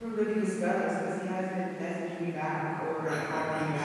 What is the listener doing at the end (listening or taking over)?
taking over